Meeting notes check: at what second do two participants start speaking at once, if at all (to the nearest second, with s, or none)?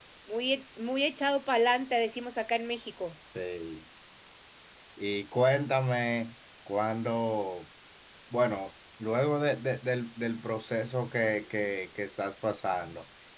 none